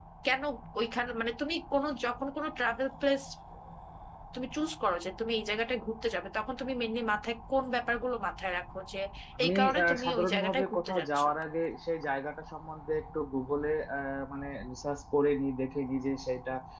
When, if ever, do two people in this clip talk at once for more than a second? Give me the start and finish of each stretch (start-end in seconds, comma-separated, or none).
9.4-11.2